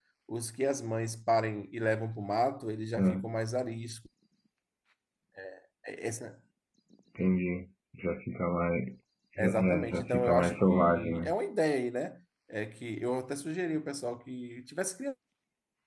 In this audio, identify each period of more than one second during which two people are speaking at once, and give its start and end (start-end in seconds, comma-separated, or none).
9.4-11.2